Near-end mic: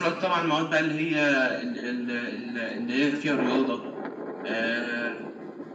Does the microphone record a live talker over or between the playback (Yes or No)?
No